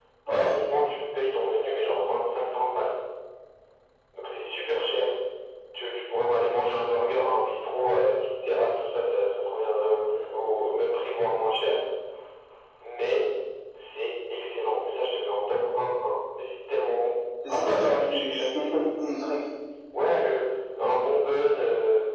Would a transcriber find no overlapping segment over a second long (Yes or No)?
No